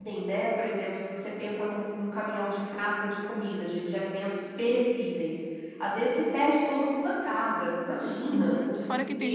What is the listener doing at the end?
taking over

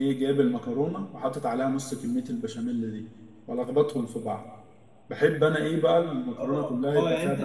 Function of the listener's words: taking over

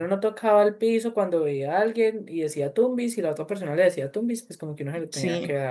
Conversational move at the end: listening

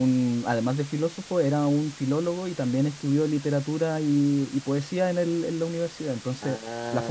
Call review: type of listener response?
listening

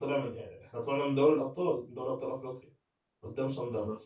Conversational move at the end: listening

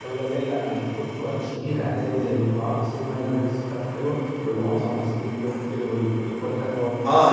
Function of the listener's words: taking over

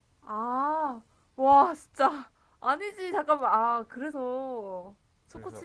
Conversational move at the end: listening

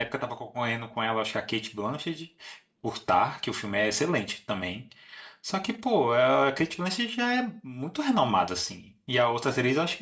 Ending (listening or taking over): listening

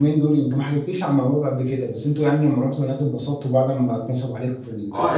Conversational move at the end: taking over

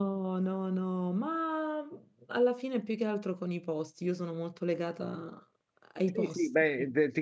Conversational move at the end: taking over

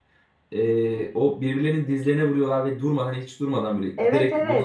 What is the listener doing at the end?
taking over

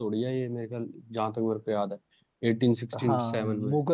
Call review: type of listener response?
taking over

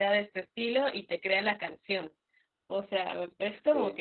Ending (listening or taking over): listening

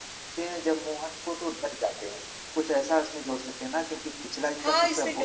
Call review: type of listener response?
taking over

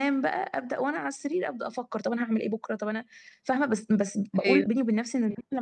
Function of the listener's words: listening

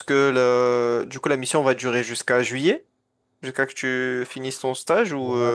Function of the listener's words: taking over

